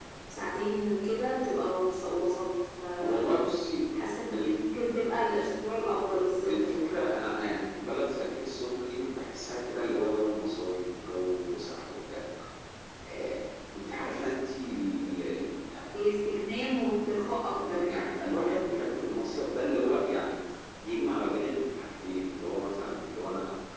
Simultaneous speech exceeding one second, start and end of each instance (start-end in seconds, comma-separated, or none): none